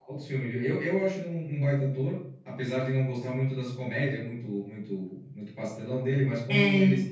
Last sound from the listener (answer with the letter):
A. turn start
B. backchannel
B